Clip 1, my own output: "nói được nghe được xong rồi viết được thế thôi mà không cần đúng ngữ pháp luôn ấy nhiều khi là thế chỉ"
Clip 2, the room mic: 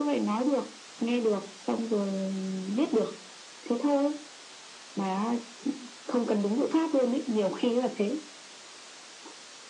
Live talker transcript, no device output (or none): none